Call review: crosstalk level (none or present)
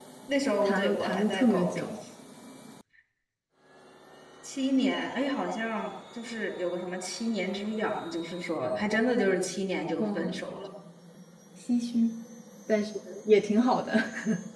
present